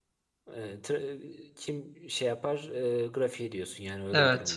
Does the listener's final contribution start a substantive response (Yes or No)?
Yes